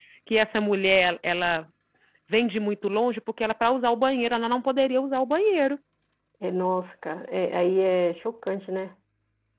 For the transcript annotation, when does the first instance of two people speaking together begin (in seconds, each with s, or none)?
none